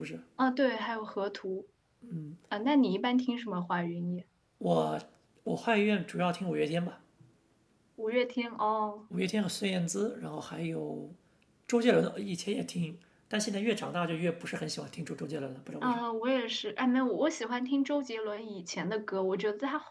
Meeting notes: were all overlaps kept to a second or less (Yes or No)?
Yes